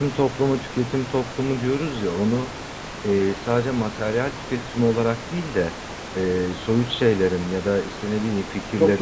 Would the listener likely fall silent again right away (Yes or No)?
Yes